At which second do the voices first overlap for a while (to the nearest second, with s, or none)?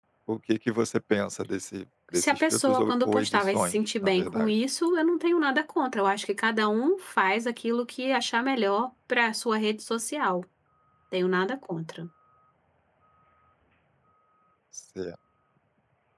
2 s